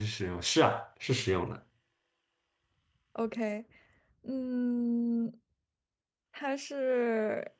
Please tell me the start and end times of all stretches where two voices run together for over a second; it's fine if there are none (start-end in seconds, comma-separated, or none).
none